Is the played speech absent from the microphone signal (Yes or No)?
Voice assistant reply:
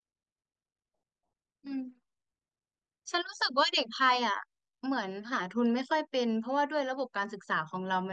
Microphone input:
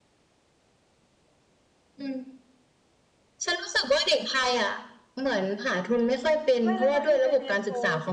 No